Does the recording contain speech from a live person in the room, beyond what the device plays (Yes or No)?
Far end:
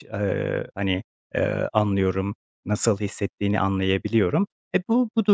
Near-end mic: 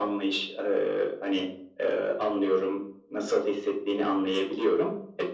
No